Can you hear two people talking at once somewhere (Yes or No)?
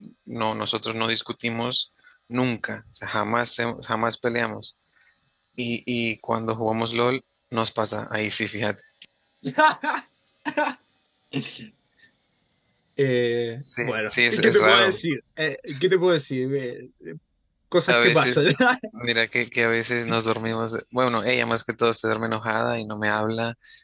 Yes